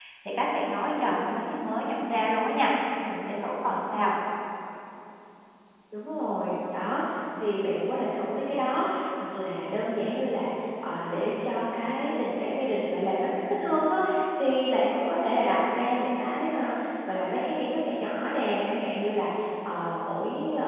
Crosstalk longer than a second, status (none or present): none